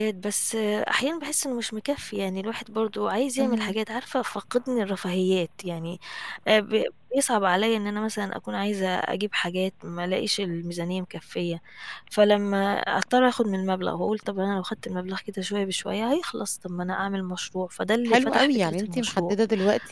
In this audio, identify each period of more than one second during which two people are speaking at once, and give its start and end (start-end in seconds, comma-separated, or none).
18.1-19.3